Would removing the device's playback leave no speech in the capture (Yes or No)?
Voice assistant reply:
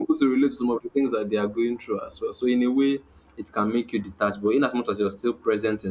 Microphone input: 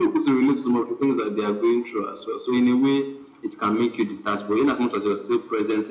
Yes